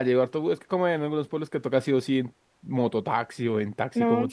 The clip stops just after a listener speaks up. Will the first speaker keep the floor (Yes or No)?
No